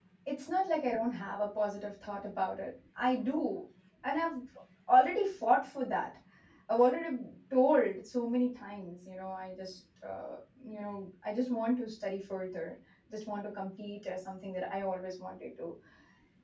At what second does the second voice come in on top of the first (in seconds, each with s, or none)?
none